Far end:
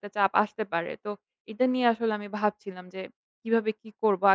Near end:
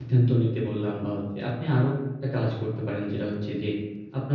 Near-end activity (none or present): present